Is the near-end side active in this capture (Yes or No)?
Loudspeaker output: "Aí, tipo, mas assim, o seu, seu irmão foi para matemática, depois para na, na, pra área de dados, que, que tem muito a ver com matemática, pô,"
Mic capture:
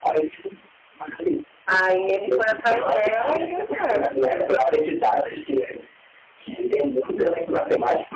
Yes